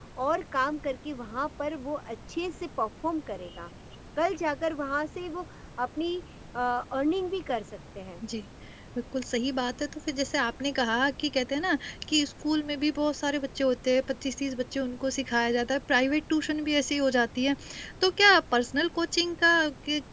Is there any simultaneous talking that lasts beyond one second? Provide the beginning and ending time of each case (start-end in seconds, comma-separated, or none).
none